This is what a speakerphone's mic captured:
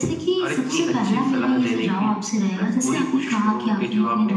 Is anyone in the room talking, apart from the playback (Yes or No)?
No